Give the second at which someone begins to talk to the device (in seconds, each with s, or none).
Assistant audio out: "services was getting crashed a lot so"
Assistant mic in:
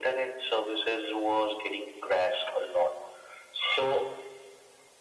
none